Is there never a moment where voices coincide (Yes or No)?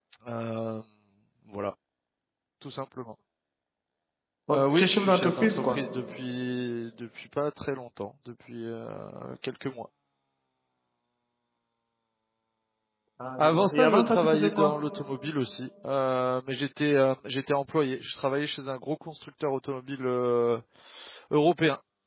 No